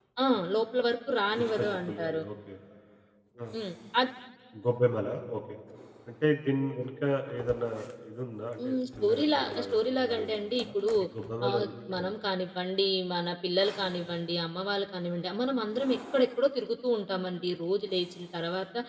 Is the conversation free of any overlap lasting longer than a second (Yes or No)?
No